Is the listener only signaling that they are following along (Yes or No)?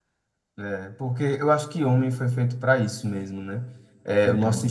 Yes